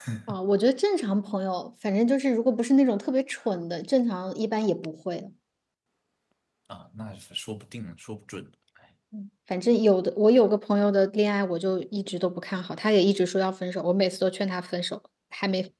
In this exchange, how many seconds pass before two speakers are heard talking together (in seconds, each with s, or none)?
none